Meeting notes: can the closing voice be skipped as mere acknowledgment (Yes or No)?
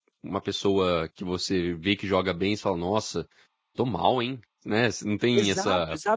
No